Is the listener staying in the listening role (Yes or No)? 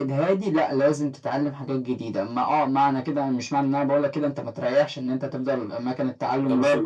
No